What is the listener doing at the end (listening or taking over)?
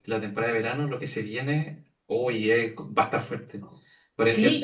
taking over